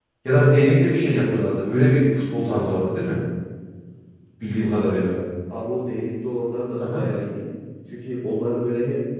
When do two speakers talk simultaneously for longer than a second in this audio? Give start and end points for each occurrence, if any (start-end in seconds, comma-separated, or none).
none